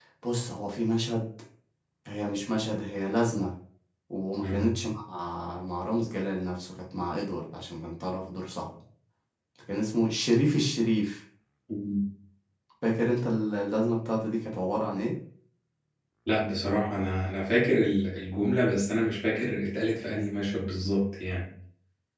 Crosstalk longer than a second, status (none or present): none